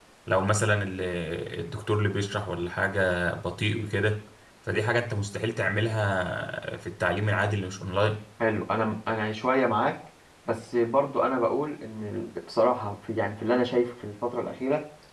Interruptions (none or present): none